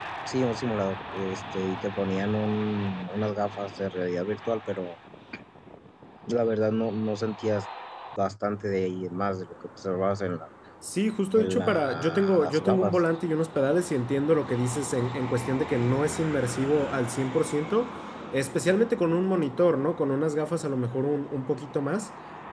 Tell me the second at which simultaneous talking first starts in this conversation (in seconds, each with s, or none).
11.4 s